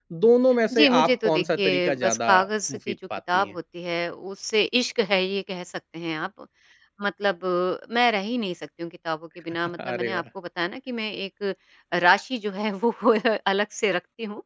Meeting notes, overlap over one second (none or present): present